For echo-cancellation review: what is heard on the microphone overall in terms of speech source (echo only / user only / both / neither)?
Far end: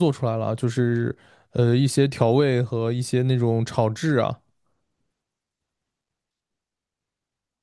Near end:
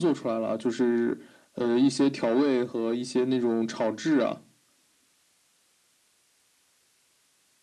echo only